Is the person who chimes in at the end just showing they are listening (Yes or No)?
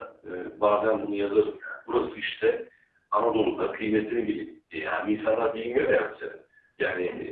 Yes